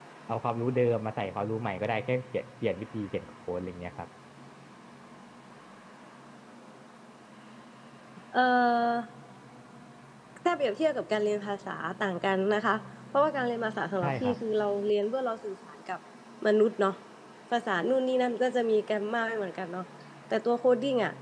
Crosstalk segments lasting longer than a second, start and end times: none

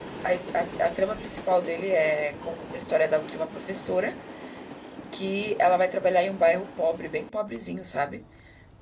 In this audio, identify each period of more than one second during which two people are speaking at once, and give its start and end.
none

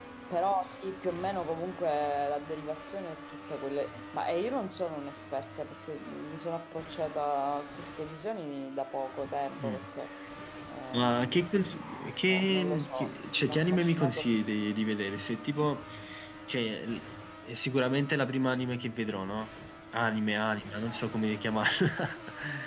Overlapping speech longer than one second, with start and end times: 12.3-14.2

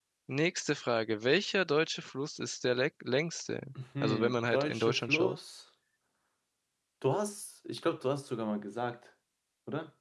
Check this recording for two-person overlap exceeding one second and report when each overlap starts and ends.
4.0-5.4

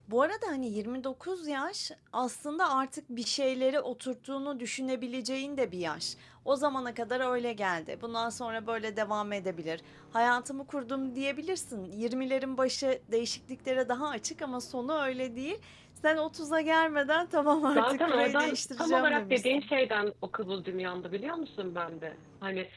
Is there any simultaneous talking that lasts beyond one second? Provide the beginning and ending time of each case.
17.7-19.7

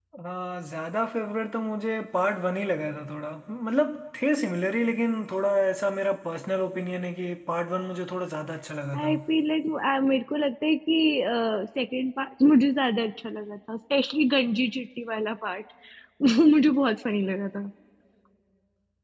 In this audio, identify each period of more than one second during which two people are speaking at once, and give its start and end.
none

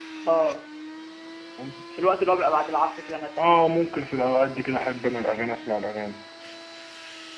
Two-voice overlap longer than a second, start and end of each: none

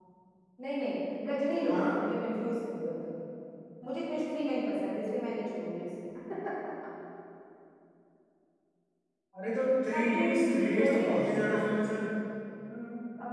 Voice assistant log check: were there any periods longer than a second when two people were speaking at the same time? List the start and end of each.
9.9-11.9

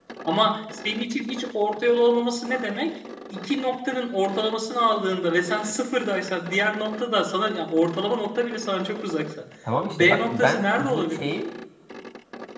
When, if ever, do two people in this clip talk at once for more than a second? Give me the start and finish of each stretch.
9.9-11.4

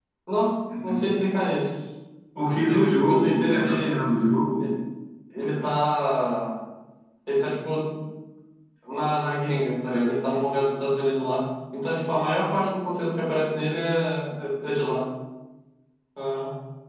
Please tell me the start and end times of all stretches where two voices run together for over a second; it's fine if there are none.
2.4-3.9

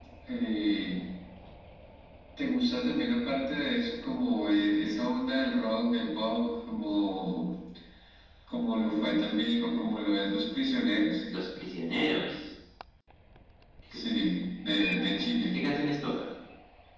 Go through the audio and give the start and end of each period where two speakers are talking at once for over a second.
none

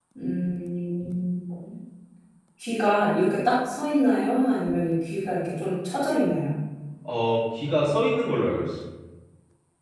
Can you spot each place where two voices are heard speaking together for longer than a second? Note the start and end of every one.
none

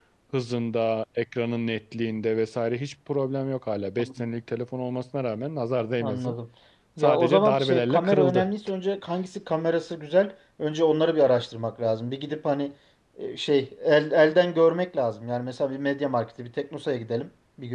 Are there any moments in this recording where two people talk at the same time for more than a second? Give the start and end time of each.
7.0-8.5

